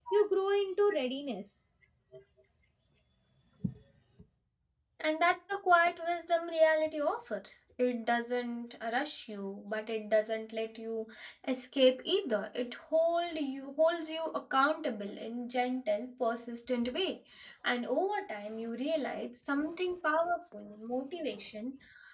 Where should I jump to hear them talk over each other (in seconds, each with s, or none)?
none